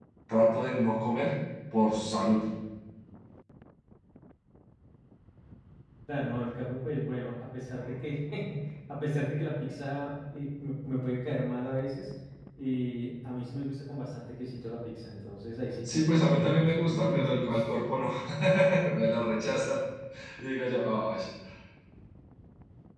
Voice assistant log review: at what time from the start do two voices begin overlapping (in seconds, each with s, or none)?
15.8 s